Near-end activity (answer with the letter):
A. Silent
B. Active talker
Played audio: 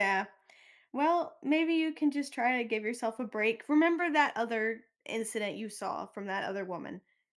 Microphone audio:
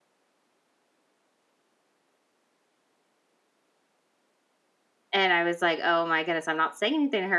B